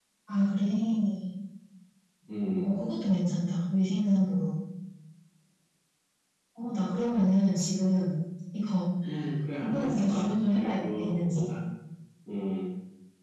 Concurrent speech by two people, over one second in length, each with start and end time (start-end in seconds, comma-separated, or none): 9.6-11.4